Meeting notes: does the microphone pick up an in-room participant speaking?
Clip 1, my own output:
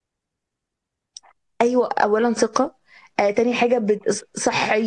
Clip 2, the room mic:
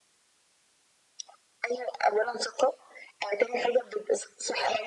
No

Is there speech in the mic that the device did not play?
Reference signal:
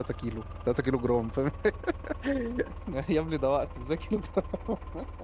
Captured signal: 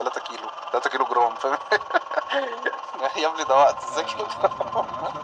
Yes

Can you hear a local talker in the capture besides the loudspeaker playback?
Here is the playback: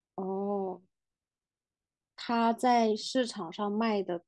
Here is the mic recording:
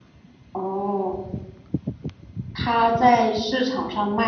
No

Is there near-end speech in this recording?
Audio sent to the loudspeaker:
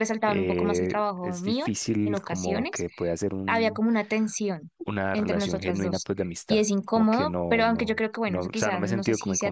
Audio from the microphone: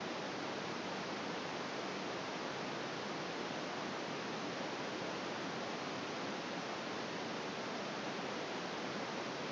No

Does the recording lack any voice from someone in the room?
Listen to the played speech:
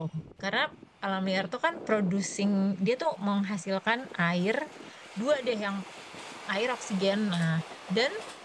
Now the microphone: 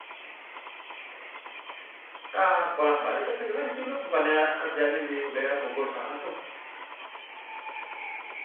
No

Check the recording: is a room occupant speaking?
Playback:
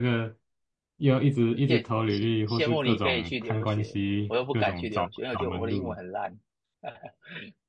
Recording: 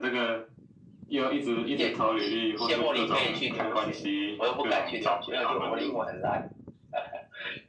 No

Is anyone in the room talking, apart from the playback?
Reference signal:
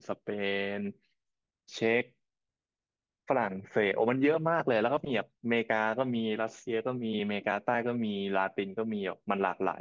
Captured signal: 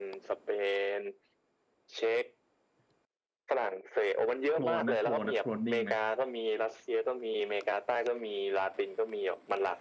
Yes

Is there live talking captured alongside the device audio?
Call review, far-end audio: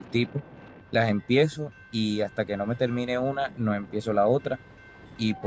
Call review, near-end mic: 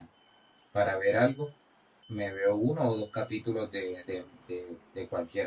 Yes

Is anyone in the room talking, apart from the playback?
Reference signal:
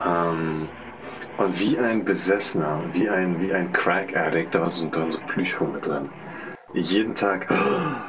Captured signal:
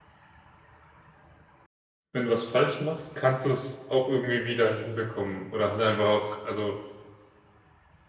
Yes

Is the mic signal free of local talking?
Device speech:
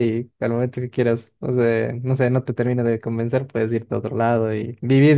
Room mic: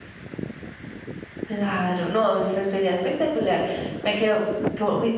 No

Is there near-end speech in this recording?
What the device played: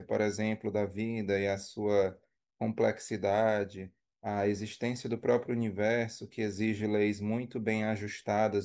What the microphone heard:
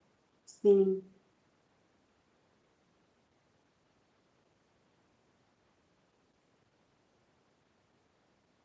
Yes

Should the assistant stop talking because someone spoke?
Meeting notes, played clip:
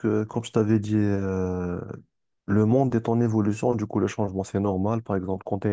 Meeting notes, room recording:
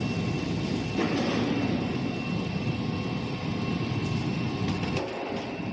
No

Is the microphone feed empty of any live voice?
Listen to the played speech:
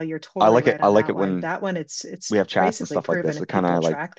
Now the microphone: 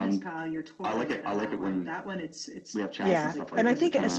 No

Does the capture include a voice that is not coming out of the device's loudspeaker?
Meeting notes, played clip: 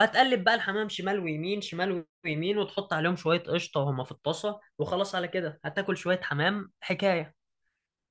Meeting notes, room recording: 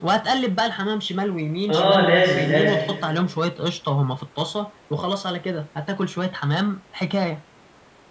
Yes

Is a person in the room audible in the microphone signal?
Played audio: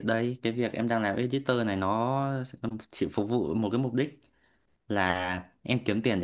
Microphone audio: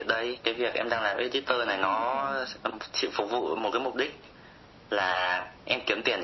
Yes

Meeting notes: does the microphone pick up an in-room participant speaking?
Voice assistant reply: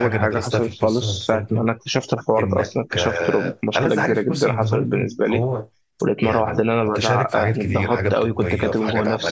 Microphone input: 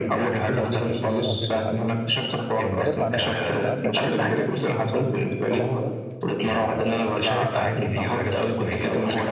Yes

